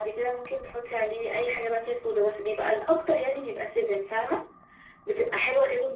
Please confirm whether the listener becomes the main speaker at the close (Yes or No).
No